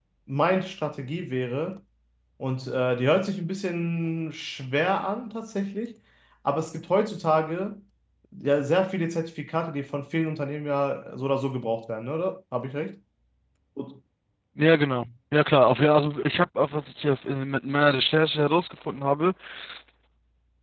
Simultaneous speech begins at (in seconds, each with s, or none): none